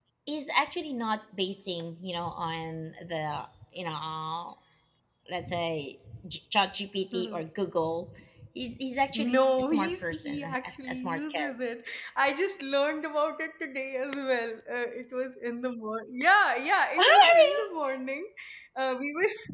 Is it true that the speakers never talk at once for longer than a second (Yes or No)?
No